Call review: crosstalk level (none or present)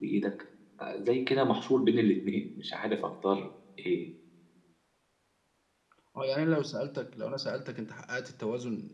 none